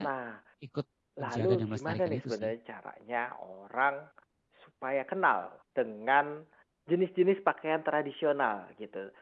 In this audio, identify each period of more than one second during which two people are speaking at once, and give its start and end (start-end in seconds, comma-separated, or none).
1.2-2.5